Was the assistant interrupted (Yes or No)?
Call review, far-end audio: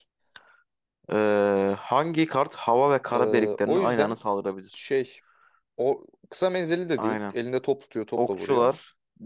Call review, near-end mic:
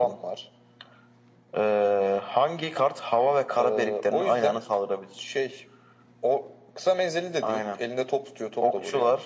No